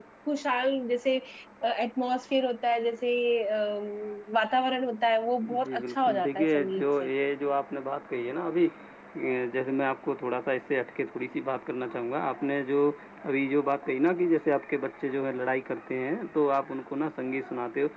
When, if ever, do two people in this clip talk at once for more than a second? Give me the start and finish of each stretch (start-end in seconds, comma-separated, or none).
5.6-6.9